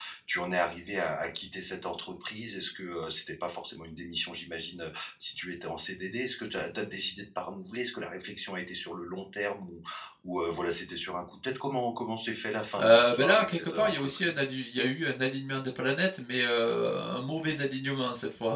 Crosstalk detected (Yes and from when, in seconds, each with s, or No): Yes, from 12.8 s